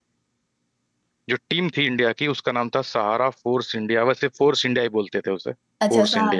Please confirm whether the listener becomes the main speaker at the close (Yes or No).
Yes